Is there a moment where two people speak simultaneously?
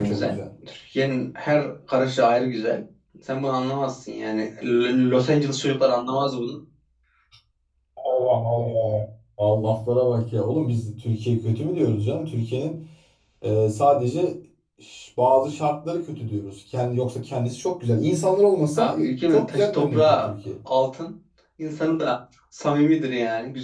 Yes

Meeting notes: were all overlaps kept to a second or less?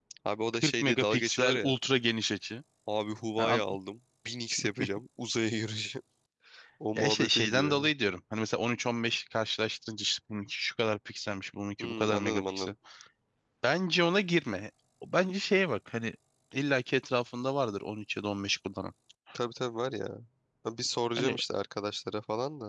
No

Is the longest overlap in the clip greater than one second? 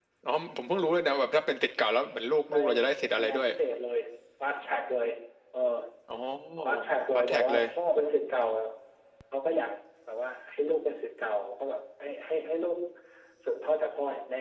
No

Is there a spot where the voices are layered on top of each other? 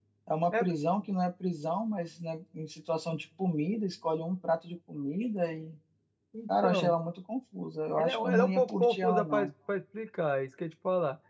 Yes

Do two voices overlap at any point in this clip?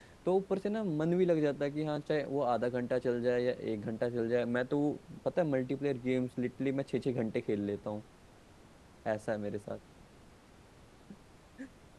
No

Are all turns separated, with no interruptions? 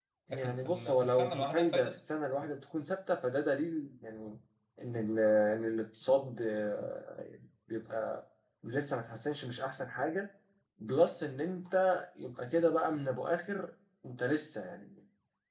No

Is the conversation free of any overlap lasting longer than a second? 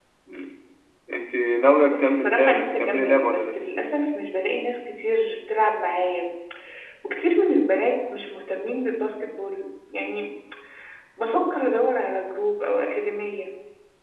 No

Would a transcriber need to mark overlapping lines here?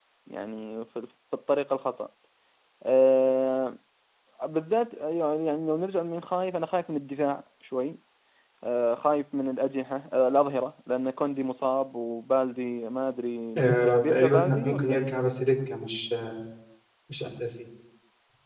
Yes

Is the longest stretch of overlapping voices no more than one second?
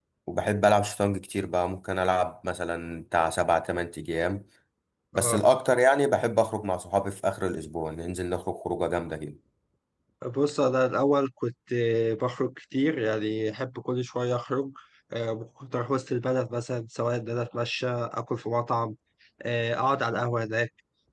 Yes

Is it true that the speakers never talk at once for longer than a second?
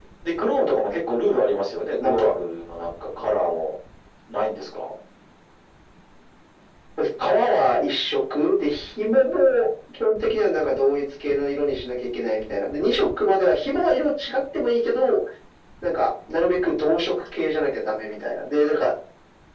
Yes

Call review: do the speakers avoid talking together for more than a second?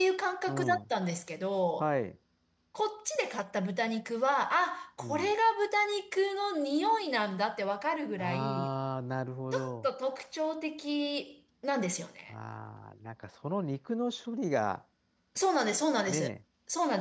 Yes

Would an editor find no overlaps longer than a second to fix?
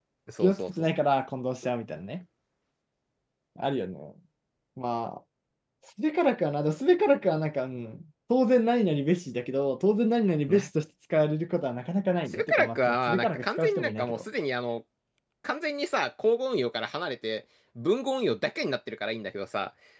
No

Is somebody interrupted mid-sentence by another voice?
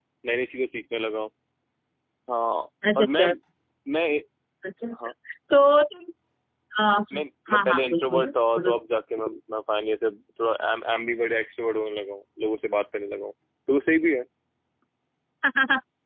Yes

